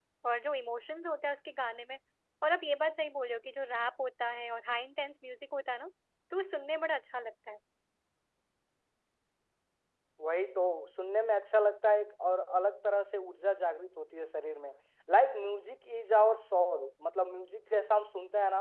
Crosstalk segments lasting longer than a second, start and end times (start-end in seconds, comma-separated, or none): none